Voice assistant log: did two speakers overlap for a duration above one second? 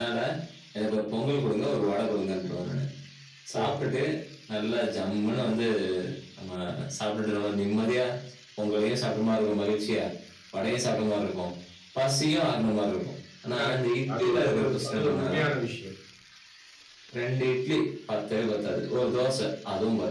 Yes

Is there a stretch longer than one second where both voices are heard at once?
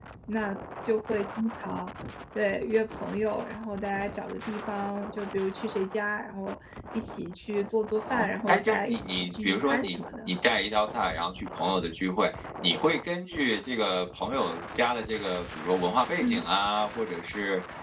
Yes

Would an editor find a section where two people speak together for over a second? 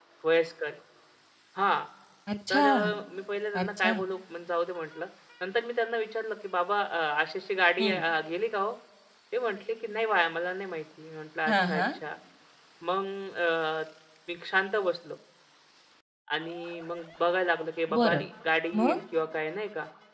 No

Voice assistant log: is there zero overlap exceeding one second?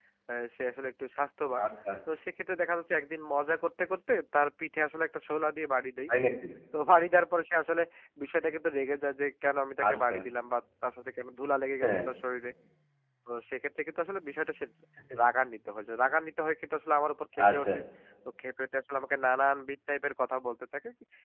Yes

